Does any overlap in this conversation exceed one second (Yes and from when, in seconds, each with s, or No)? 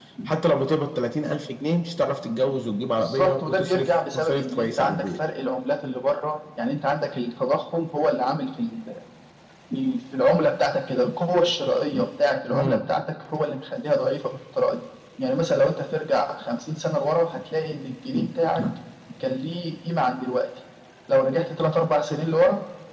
Yes, from 3.0 s